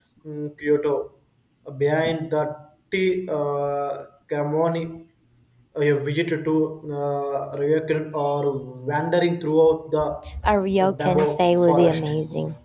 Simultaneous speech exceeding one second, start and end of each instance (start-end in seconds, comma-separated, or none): 10.8-12.1